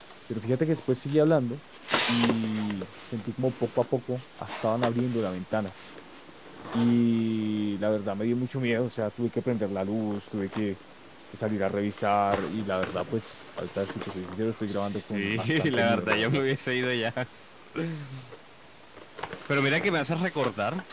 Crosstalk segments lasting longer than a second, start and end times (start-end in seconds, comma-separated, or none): 14.7-16.4